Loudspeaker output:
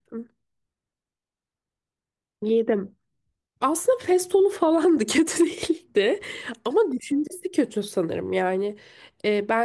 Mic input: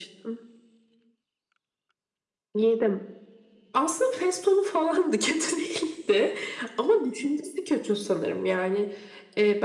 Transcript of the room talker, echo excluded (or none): none